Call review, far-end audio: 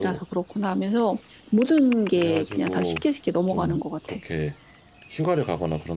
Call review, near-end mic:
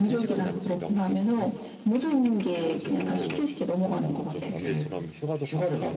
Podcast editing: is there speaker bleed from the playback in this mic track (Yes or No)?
Yes